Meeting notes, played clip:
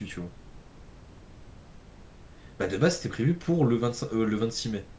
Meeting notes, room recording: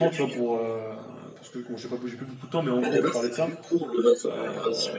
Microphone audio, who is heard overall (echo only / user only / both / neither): both